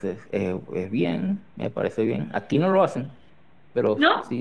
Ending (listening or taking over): listening